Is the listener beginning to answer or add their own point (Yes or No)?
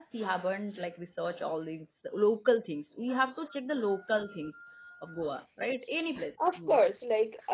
Yes